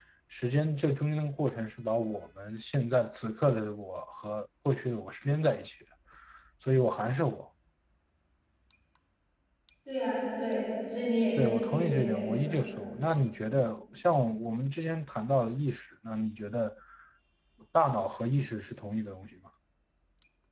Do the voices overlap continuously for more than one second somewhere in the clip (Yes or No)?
Yes